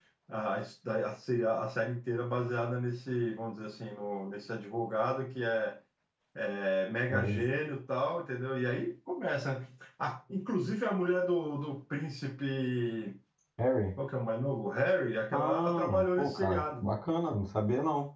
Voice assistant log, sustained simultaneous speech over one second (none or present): present